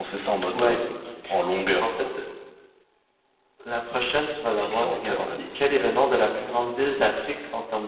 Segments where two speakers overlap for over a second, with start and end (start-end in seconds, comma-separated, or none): 4.5-6.0